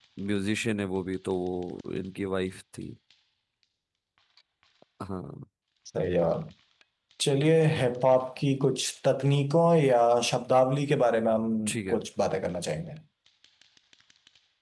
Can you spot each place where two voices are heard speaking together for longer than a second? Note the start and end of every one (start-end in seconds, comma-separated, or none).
none